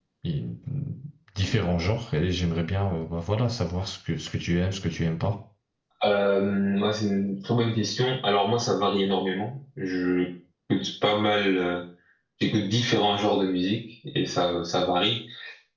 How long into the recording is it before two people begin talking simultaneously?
none

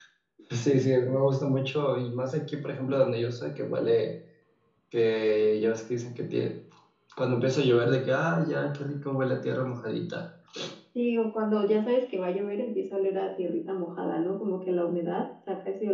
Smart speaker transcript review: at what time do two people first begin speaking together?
none

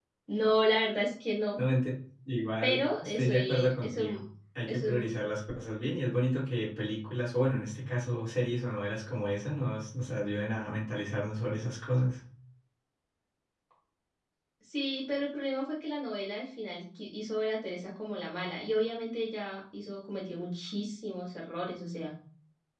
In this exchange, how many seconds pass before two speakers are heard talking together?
2.6 s

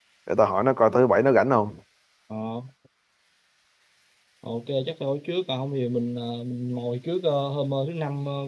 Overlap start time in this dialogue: none

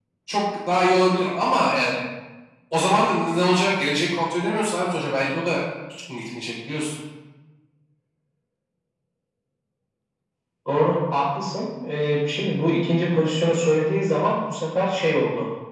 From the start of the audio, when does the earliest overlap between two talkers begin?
none

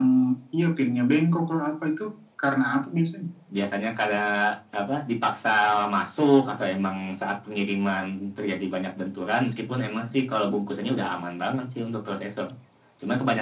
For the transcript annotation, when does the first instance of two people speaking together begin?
none

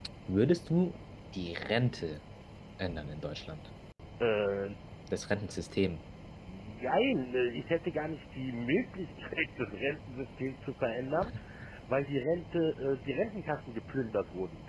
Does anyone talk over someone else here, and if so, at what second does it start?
none

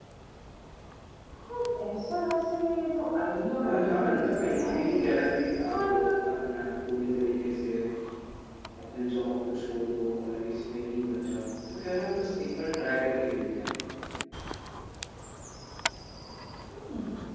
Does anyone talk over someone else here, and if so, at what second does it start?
3.6 s

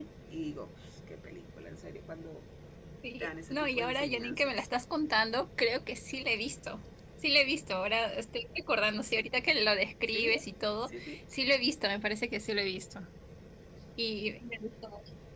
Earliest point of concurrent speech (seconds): 3.2 s

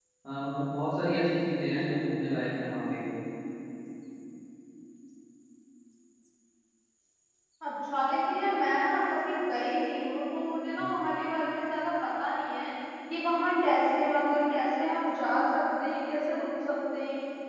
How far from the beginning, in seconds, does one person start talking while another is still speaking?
none

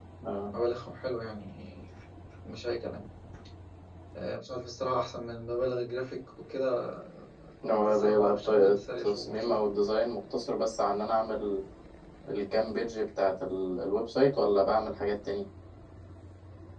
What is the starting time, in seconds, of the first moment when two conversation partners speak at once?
7.7 s

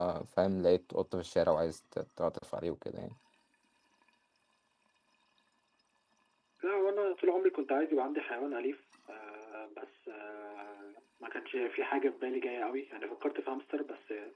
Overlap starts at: none

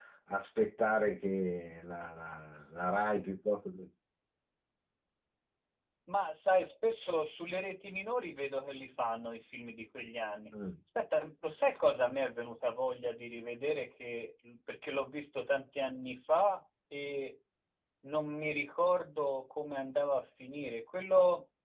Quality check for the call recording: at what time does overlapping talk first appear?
none

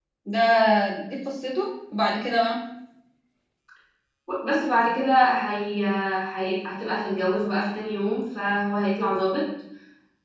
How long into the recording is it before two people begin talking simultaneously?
none

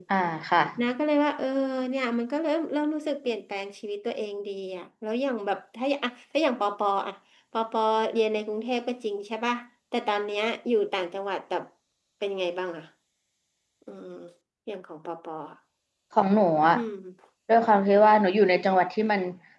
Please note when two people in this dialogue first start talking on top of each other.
none

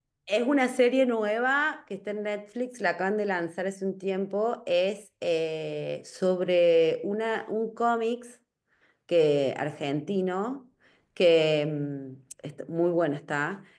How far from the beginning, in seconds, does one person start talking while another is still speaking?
none

